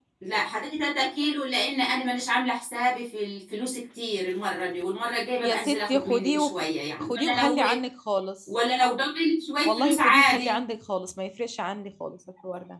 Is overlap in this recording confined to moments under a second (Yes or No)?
No